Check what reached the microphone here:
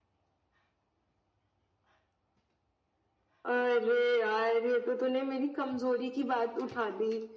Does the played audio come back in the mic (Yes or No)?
Yes